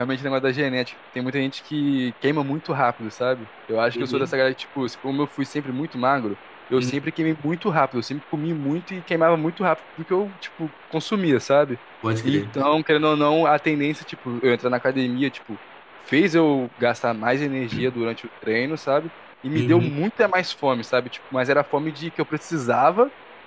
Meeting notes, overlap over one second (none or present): none